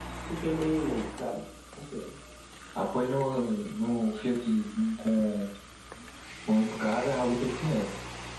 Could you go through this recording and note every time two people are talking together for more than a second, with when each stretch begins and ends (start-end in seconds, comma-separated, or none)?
none